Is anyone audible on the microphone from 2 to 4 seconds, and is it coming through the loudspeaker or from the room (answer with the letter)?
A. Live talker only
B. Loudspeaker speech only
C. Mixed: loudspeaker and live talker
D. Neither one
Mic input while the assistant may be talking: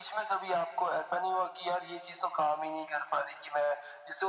B